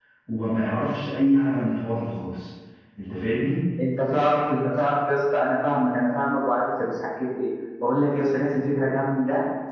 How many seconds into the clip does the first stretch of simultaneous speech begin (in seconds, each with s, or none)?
none